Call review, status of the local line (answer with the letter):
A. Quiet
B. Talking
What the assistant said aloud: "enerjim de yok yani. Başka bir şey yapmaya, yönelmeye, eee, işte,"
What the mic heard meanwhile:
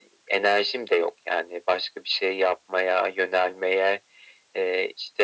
A